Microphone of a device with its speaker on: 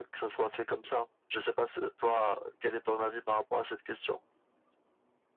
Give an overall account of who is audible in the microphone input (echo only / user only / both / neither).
echo only